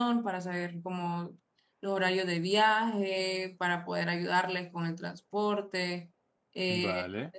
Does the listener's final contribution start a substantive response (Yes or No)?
No